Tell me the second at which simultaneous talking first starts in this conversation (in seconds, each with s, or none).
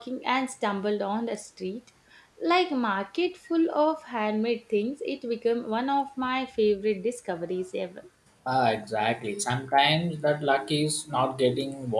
none